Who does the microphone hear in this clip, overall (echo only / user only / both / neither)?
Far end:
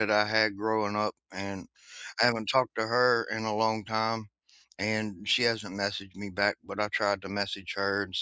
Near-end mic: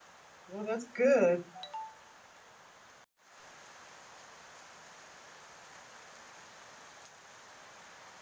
user only